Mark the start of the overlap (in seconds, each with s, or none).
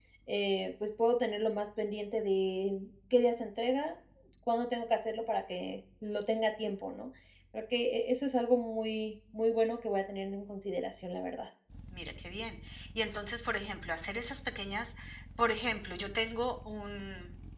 none